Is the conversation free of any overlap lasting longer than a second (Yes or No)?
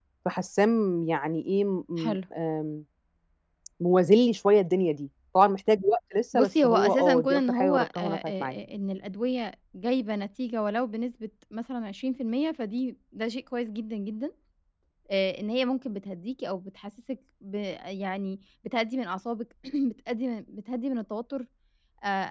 No